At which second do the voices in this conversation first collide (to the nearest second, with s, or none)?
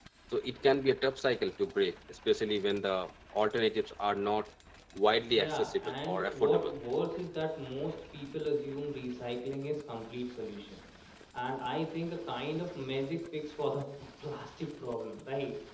5 s